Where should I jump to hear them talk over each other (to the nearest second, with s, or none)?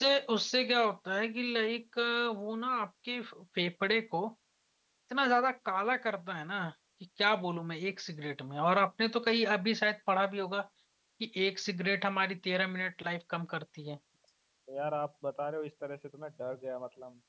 none